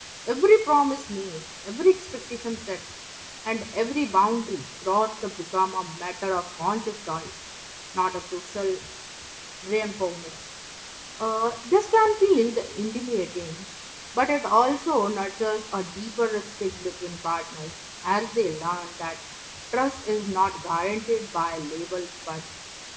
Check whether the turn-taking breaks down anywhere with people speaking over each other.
No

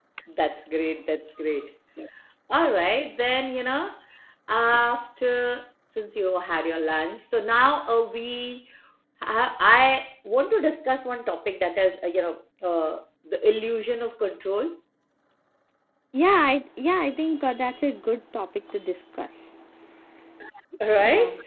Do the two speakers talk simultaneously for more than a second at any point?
No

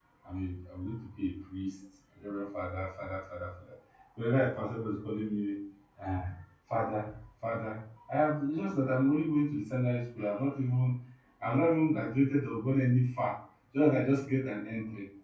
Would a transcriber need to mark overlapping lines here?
No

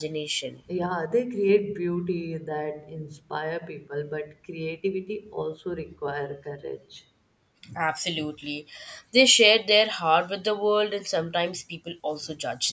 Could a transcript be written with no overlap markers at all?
Yes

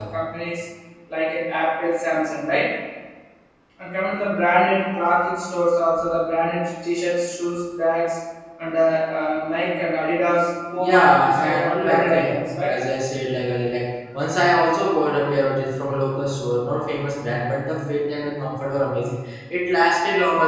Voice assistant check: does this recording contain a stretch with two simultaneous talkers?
Yes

